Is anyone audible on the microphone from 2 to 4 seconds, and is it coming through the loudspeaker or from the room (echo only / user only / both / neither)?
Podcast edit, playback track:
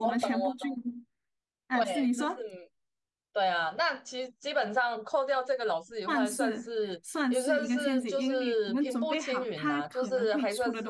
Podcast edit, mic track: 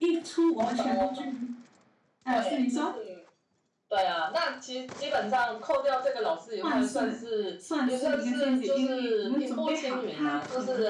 echo only